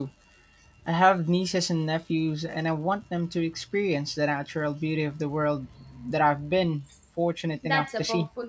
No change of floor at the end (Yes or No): No